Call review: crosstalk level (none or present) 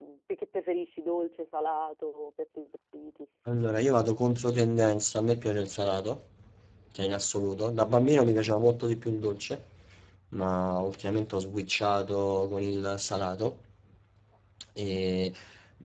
none